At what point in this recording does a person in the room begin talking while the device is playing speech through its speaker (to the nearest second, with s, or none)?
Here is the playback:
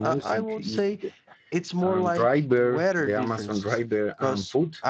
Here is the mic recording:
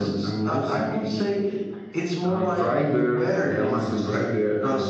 none